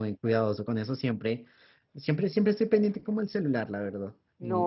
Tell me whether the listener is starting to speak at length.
Yes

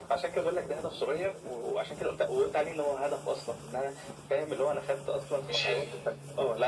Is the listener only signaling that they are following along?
Yes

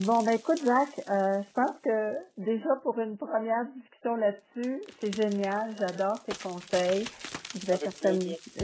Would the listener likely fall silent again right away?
Yes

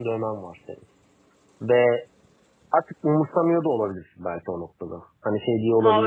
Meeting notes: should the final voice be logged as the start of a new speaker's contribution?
Yes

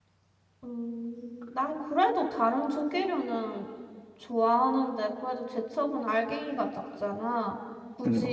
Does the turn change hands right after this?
No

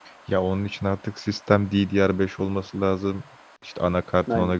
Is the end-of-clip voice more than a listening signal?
No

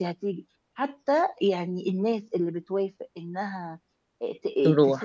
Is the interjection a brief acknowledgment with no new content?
Yes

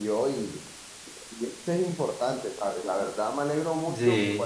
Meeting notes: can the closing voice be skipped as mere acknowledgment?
Yes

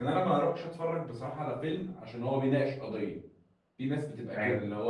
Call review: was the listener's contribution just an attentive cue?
Yes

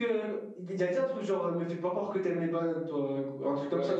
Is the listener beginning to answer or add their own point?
Yes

